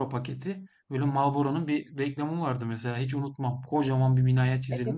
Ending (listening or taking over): taking over